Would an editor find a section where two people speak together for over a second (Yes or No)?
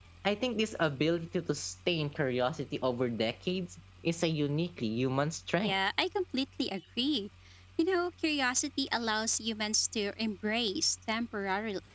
No